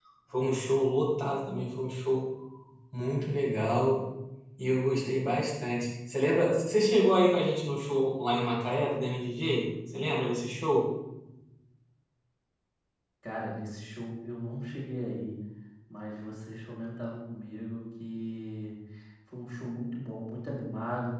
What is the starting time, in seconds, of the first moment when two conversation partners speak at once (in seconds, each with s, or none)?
none